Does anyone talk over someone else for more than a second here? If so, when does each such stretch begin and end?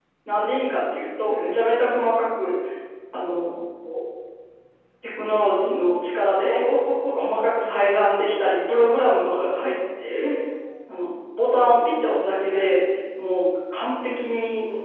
none

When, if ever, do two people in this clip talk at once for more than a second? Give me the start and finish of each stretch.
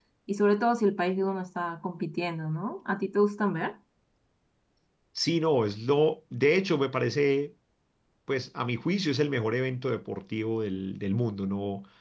none

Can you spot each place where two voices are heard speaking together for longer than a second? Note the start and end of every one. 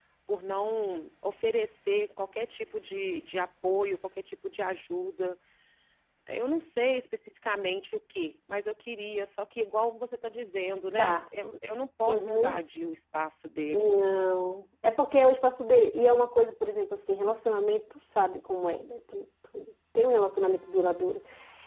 none

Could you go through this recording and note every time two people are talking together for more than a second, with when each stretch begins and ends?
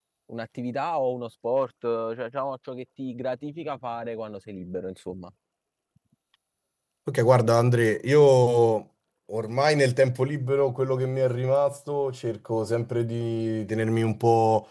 none

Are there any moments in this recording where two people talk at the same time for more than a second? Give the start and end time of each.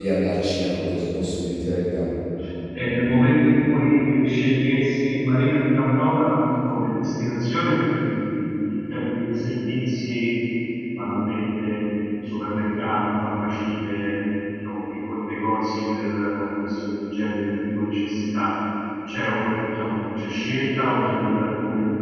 none

